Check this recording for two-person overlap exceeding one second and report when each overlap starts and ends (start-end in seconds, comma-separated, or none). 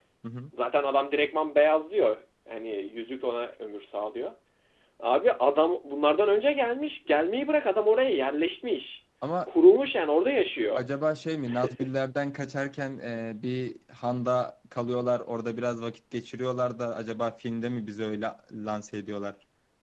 none